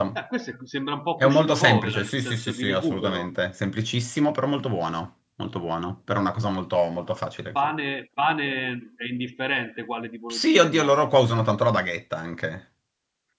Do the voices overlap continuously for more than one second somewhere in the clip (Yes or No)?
Yes